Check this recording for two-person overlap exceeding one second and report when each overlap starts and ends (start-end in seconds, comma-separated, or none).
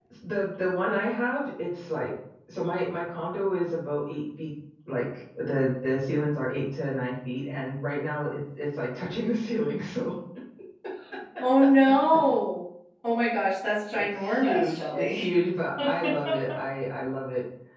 13.9-15.3